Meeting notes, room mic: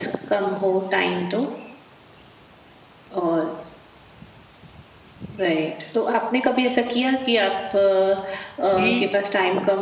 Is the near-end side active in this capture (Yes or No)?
Yes